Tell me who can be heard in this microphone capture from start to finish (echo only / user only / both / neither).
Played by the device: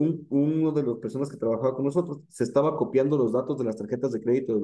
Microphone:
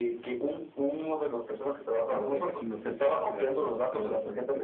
both